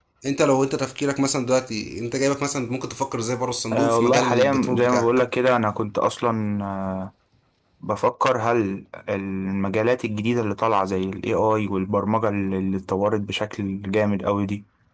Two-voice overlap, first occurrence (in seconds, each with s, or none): 3.7 s